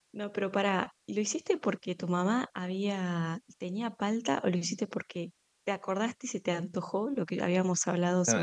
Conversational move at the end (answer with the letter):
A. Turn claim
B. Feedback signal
A